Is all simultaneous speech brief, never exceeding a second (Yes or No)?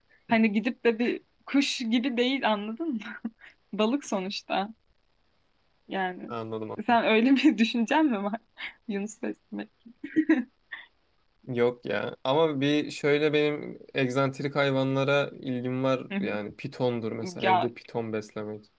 Yes